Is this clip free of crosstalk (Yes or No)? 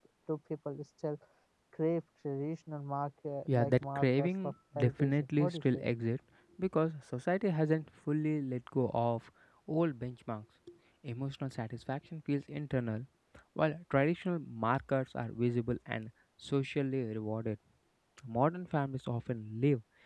No